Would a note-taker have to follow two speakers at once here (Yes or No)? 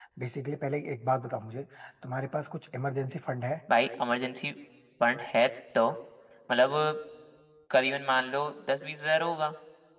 No